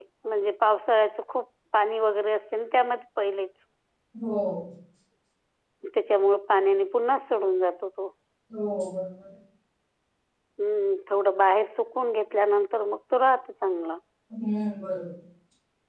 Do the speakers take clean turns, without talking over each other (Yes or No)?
Yes